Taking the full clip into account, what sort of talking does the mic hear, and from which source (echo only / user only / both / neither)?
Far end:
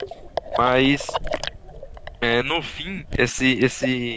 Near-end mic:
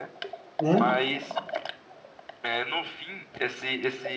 both